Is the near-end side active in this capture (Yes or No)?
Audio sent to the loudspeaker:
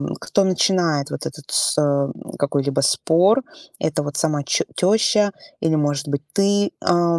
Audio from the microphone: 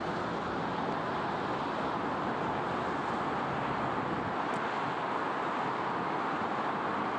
No